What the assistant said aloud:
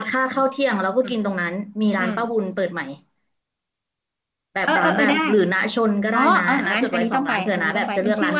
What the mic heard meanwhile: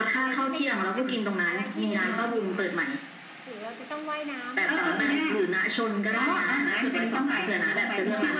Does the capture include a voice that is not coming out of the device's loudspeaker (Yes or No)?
Yes